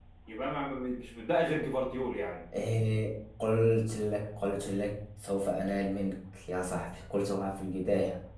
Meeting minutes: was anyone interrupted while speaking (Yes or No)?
No